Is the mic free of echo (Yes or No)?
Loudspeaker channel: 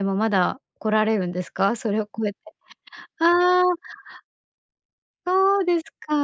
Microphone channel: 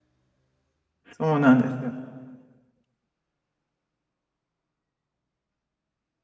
Yes